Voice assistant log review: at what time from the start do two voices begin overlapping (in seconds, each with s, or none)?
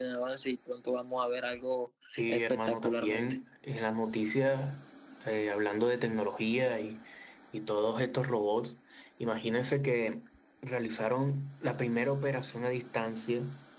2.1 s